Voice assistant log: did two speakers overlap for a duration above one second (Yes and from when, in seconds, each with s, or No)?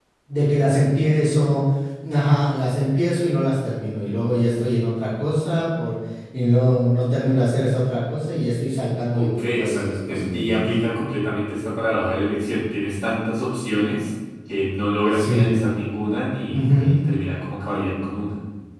Yes, from 9.1 s